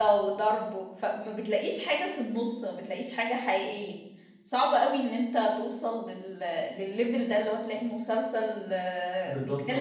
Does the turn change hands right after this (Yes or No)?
No